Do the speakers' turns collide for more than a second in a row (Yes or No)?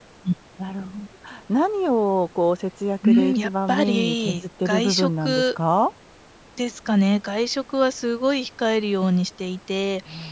Yes